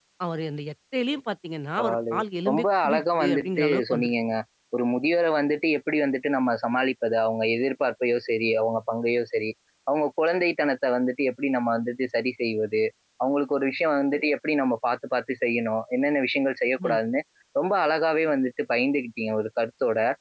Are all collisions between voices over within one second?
No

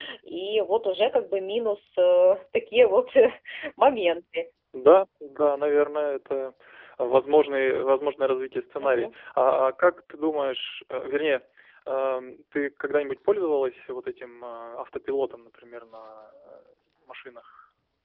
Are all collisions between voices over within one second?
Yes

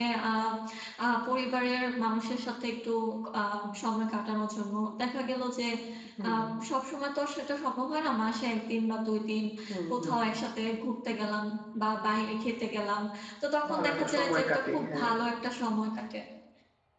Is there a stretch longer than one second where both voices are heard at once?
Yes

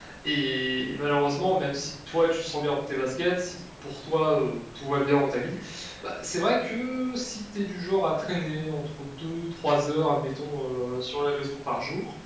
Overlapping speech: No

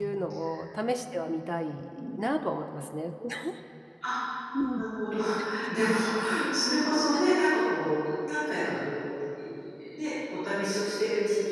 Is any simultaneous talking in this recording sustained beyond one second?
No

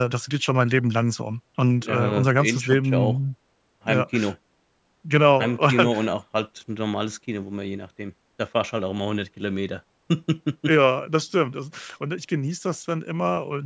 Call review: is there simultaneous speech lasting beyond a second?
Yes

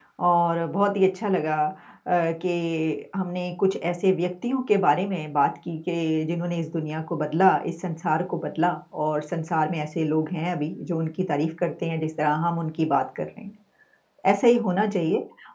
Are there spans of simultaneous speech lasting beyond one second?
No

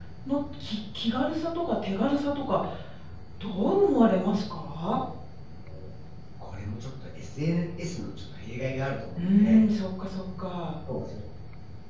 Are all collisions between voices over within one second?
Yes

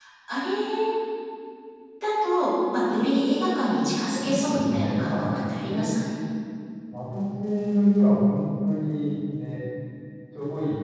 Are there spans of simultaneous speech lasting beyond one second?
Yes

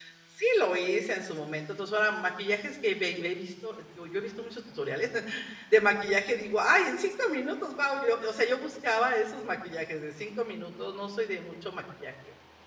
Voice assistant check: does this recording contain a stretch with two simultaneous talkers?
No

